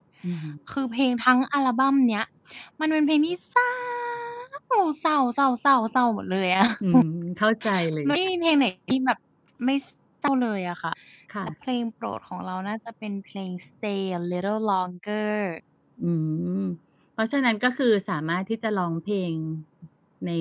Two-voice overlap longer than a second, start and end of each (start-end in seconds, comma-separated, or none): none